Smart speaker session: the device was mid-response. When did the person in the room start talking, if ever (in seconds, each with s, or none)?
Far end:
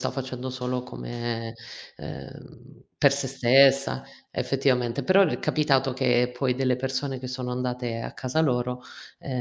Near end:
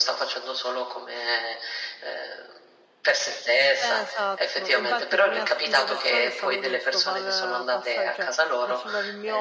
3.8 s